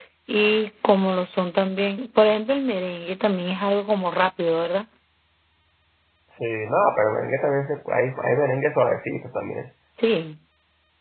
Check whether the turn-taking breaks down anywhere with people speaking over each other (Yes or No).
No